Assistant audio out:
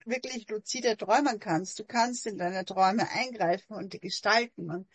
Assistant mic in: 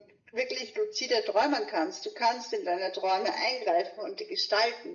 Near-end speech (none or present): none